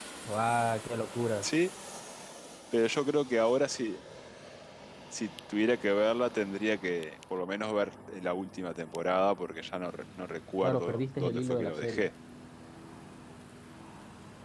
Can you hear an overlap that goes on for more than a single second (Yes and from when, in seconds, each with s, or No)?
Yes, from 10.6 s